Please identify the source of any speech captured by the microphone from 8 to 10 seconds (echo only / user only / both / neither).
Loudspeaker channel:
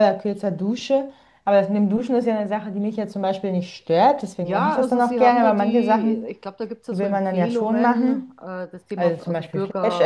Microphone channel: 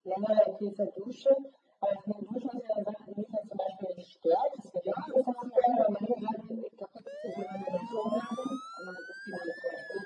echo only